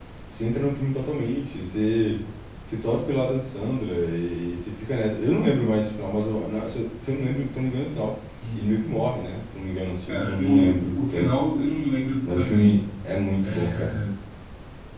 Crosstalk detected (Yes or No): Yes